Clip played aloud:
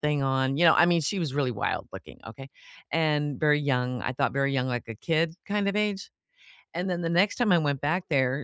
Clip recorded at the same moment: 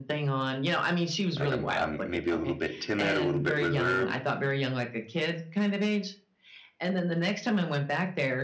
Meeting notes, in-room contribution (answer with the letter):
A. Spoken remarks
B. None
A